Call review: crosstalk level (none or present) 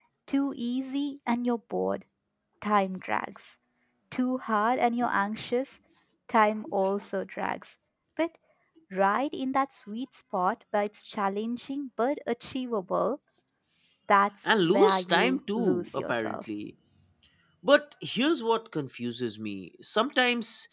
present